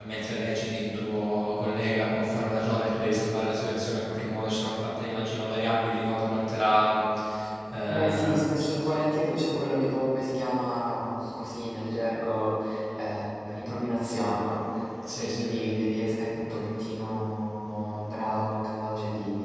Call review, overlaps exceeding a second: present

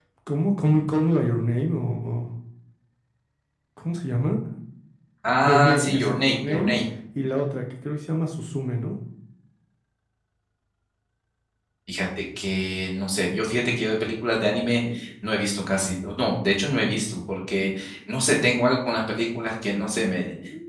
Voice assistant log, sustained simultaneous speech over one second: present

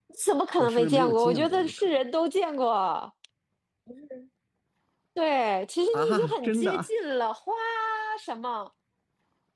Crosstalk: present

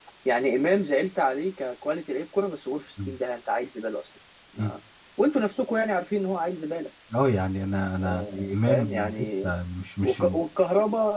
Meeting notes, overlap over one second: present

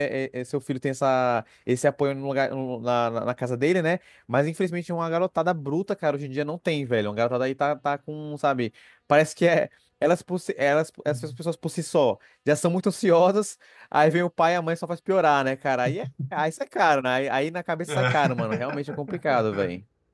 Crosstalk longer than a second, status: present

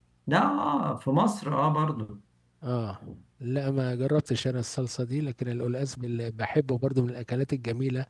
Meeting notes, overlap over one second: none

